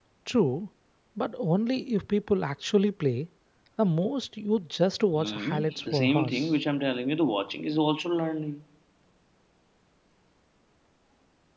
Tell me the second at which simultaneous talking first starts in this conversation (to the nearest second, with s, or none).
5 s